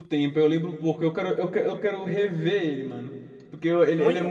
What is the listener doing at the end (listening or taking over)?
taking over